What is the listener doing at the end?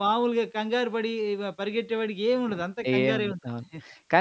taking over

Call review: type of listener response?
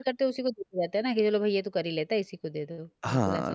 taking over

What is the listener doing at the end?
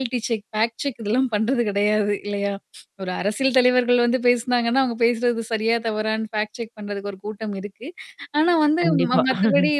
listening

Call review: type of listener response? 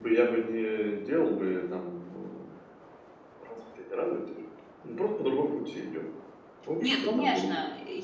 taking over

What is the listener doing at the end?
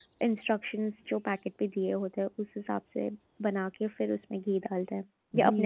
taking over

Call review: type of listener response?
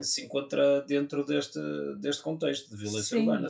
taking over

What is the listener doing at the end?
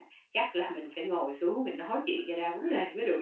taking over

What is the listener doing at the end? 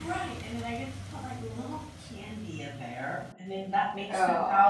listening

